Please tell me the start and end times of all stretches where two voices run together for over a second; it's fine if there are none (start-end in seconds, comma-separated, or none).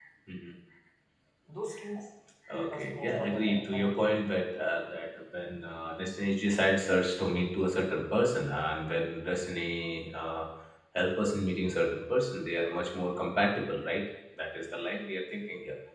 2.5-4.1